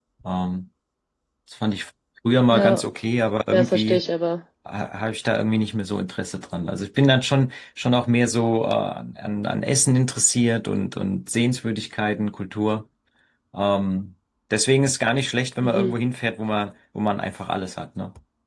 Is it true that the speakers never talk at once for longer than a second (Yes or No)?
Yes